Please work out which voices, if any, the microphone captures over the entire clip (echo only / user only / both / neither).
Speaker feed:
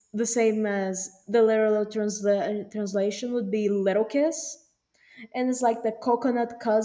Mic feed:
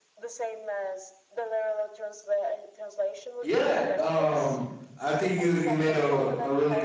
both